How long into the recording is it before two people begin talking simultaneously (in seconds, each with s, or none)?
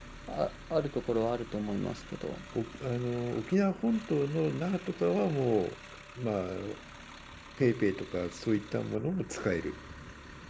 none